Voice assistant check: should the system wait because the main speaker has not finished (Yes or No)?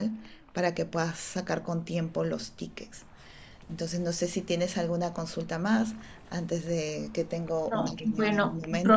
No